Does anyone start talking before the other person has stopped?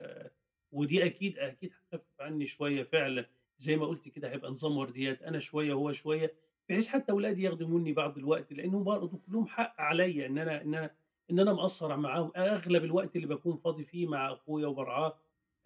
No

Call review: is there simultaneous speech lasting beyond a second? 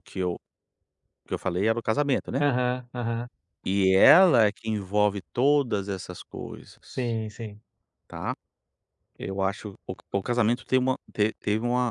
No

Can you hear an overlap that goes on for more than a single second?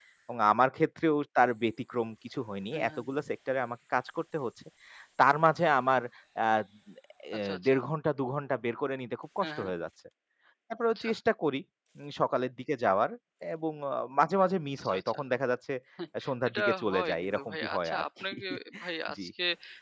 Yes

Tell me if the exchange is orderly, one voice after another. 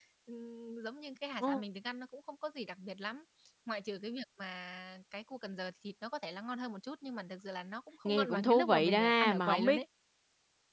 No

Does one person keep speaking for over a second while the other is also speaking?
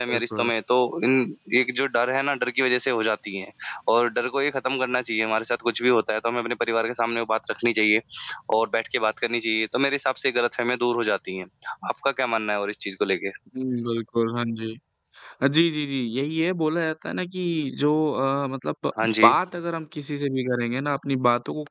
No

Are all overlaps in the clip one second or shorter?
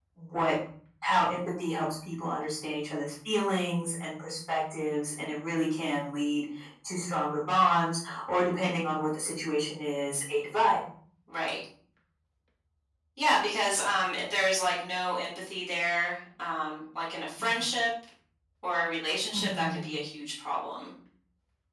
Yes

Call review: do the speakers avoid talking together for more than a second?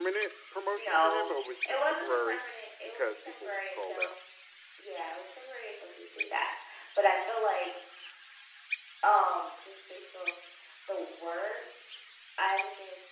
No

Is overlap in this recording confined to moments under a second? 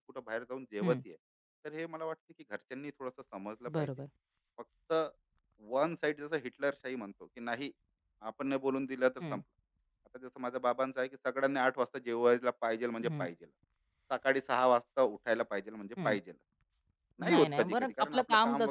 No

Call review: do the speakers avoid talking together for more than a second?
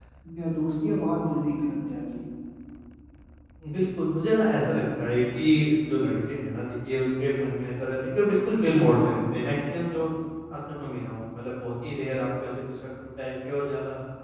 Yes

